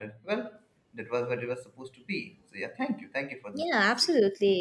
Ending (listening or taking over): taking over